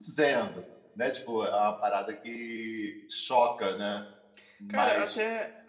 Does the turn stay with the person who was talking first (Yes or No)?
No